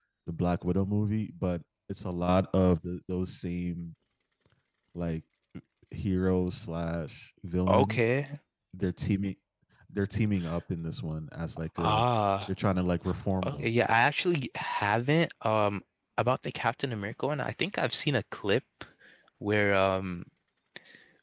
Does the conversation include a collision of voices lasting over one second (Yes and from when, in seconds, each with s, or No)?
No